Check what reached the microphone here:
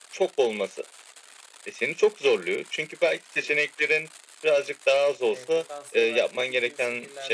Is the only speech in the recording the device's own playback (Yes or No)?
No